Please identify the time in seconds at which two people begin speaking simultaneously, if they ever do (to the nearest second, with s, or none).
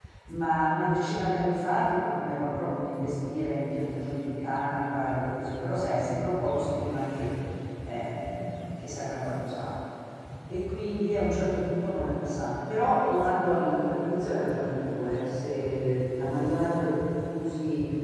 none